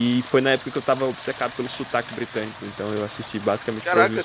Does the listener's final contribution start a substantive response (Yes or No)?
Yes